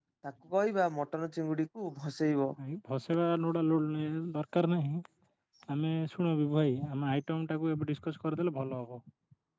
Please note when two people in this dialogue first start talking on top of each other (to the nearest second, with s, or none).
none